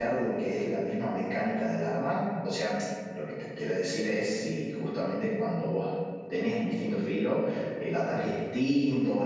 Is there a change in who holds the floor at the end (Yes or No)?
No